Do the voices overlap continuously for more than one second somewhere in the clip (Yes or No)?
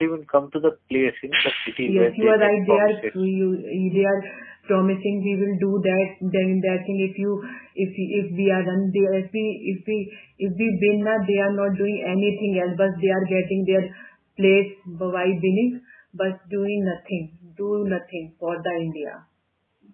Yes